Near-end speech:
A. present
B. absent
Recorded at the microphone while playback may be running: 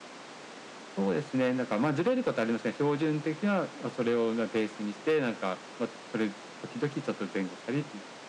B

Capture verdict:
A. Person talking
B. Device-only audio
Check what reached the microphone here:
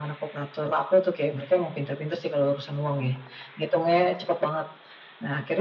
B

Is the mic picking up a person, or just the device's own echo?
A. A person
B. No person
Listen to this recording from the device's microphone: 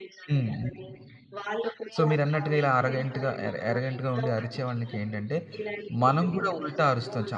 A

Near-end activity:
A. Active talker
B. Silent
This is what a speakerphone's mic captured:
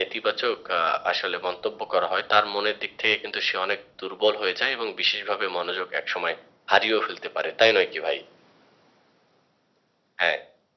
B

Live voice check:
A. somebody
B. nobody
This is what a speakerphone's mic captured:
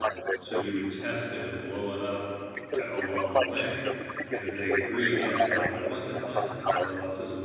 A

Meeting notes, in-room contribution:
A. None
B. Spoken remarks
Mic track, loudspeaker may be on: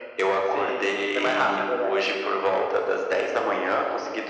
A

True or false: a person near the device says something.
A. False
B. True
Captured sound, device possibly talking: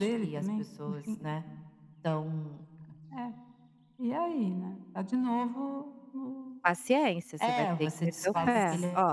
B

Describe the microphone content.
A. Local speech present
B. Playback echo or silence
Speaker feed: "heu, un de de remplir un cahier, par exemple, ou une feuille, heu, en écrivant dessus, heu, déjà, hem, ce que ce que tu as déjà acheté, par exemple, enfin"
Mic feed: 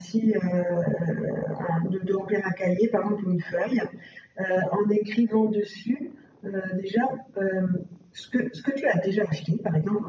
B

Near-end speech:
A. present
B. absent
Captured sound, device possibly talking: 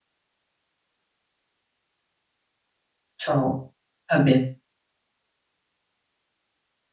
A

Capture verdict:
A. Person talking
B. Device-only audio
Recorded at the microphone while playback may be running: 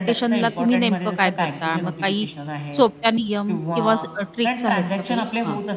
A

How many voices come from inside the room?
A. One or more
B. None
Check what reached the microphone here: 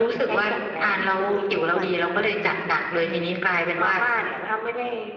A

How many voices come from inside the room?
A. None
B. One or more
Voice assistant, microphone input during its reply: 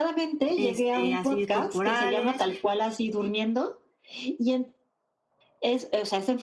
B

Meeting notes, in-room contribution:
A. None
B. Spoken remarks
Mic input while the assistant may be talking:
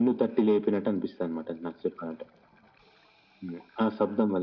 A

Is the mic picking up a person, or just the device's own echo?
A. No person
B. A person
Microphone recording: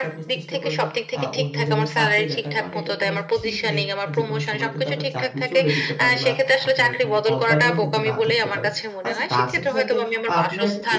B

